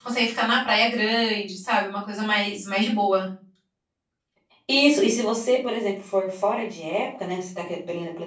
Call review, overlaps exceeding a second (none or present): none